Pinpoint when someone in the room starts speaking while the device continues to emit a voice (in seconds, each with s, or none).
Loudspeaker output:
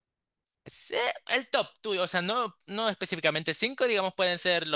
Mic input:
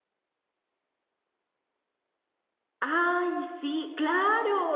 2.8 s